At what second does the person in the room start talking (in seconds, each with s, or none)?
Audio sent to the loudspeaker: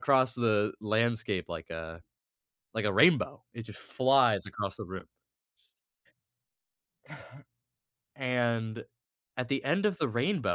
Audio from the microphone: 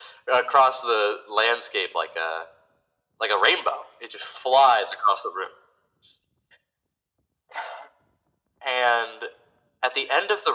none